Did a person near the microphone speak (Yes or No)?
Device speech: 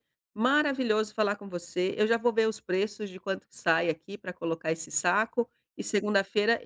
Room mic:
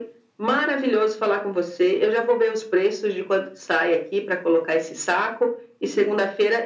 No